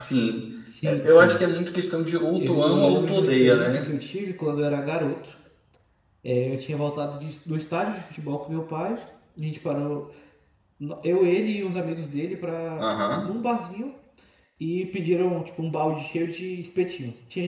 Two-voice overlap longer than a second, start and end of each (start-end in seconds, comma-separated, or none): 2.4-3.8